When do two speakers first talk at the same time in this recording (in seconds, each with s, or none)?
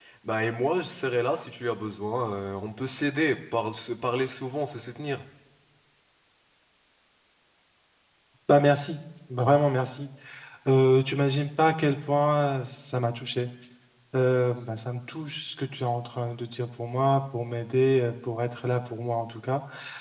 none